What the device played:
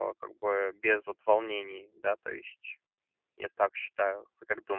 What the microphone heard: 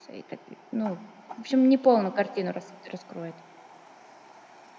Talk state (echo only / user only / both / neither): user only